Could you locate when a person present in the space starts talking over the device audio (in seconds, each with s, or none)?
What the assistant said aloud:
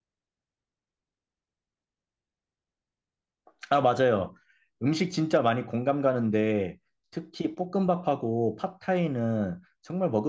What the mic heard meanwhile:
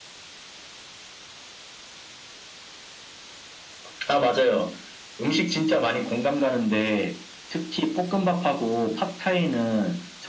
none